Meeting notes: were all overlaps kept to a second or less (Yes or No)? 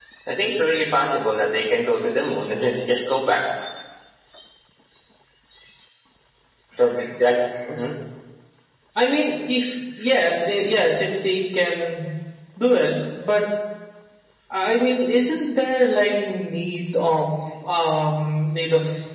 Yes